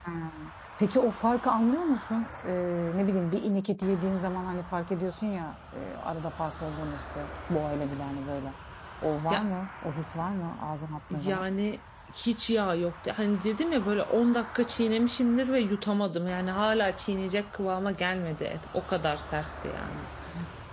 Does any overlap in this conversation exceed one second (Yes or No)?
No